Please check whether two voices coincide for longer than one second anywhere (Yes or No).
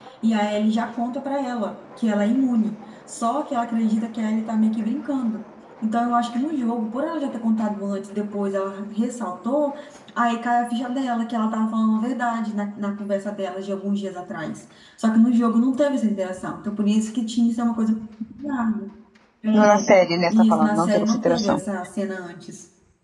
Yes